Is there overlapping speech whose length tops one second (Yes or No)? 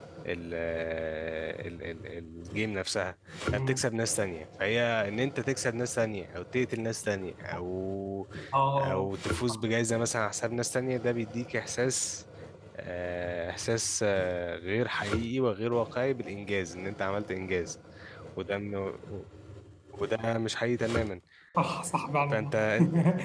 No